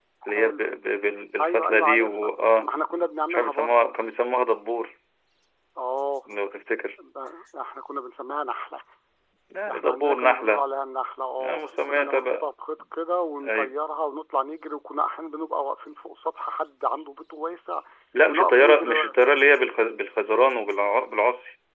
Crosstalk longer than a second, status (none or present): present